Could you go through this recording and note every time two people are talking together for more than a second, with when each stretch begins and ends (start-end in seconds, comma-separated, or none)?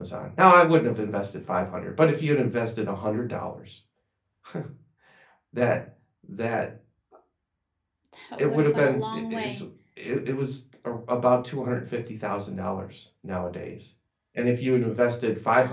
8.4-9.6